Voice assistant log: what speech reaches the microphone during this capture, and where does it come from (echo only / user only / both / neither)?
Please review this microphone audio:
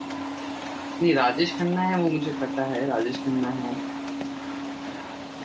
user only